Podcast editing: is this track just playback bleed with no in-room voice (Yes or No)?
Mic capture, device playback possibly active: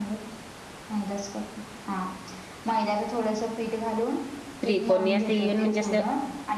No